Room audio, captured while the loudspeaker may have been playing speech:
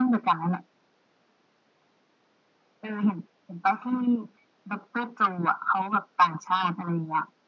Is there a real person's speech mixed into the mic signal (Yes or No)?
No